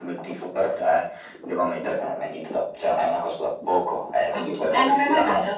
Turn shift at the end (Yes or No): Yes